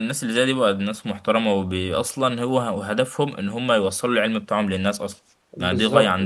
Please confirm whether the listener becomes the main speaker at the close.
Yes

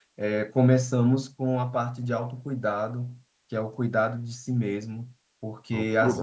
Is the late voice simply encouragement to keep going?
Yes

